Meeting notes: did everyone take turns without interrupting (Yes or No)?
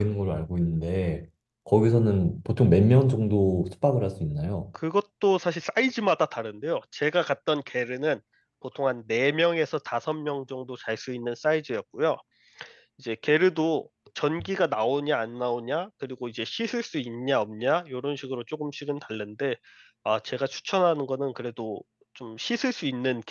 Yes